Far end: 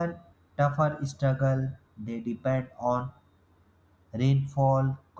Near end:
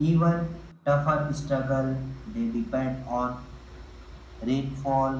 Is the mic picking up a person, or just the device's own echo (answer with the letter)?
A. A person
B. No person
B